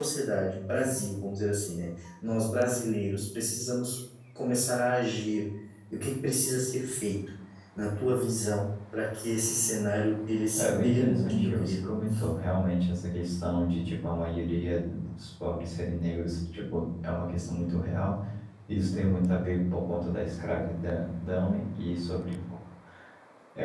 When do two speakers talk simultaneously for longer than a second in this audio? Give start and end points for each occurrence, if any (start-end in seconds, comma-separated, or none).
10.6-11.9